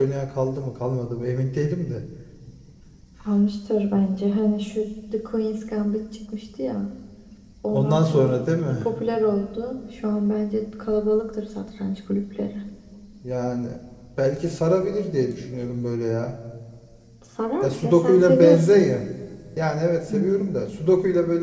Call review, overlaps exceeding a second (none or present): present